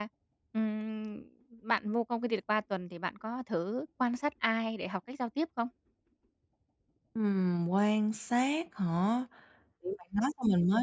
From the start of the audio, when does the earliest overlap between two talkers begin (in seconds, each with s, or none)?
none